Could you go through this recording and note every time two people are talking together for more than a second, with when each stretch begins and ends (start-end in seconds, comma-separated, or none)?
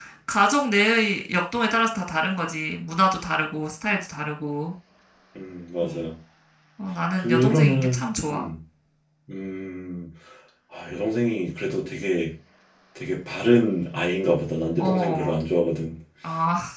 7.2-8.5